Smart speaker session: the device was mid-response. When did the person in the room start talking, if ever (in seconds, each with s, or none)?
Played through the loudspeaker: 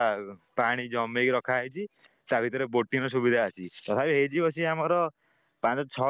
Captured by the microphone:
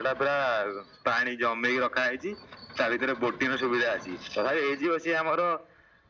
none